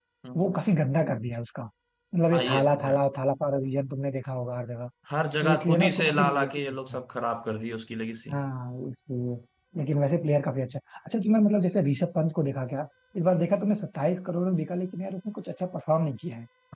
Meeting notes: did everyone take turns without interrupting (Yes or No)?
No